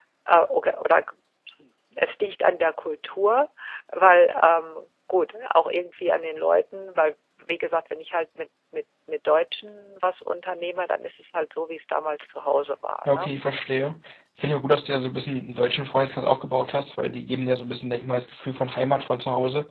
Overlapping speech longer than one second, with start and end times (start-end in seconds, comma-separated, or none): none